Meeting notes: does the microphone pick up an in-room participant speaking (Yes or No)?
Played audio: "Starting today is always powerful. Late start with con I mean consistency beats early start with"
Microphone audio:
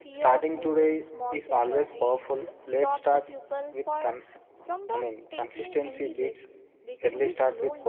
Yes